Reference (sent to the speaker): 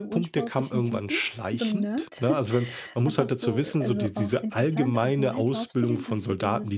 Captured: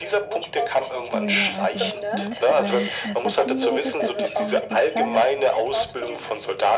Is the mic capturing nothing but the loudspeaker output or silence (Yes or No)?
No